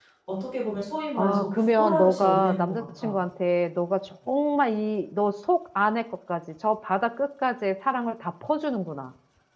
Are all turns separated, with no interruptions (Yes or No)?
No